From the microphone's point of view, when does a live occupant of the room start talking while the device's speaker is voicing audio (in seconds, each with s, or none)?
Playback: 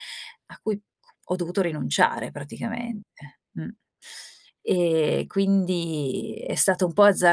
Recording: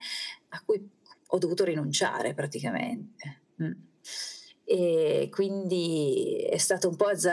none